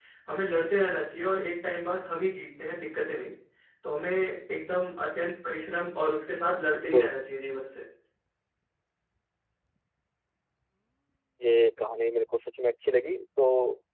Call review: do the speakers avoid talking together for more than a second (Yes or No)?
Yes